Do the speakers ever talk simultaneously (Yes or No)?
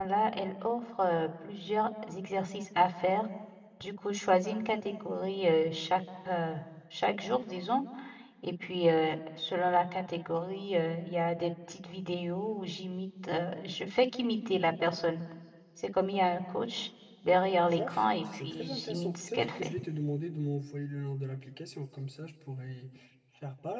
Yes